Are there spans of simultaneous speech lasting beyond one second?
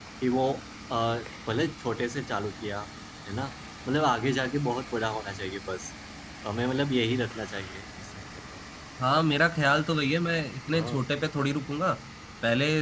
No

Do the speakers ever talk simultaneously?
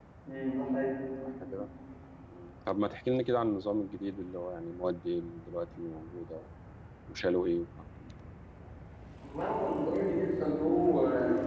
No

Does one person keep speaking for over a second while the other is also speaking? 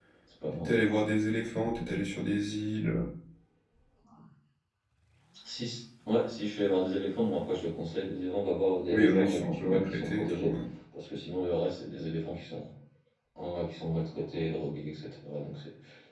Yes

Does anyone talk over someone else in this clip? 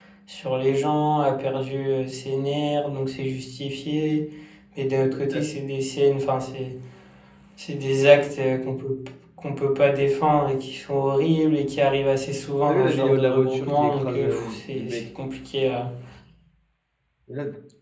Yes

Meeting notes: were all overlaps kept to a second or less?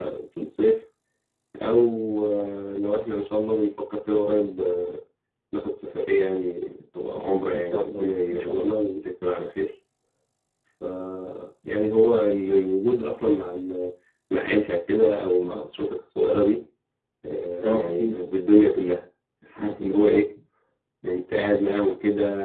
No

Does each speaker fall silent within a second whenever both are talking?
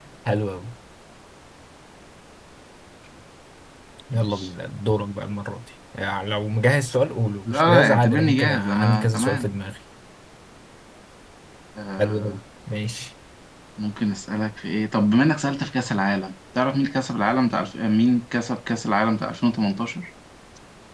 No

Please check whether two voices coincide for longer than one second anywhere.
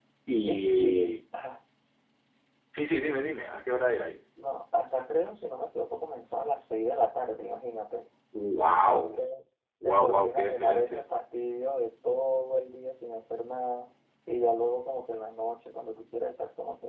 Yes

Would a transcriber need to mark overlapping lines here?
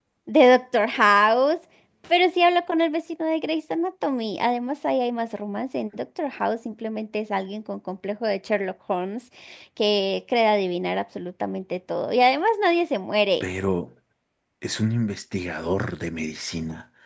No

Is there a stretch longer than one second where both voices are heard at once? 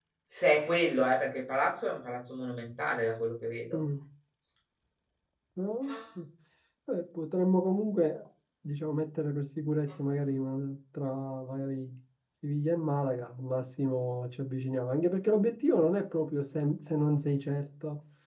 No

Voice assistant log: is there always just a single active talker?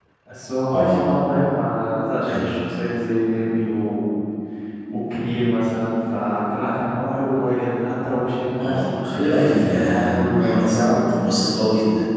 No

